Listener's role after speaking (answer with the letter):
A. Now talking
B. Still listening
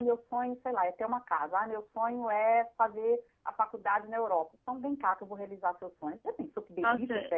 A